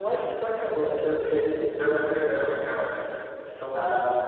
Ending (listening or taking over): listening